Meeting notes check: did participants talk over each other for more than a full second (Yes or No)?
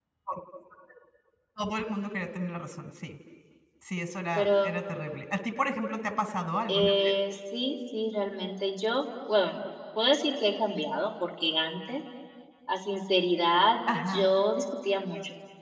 No